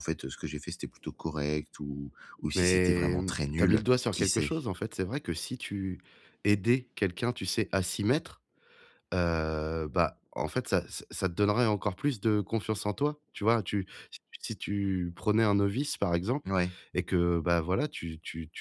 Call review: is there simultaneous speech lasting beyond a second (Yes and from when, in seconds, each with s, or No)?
Yes, from 2.5 s